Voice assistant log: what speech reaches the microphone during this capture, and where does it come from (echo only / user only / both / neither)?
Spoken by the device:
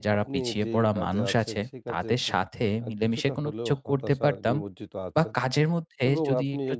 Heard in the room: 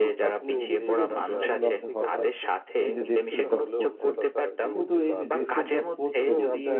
both